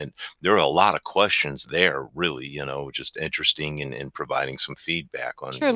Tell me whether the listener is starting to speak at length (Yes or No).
Yes